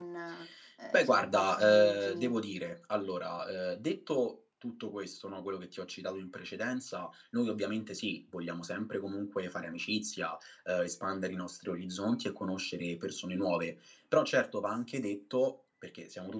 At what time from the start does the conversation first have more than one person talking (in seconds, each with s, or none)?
1.0 s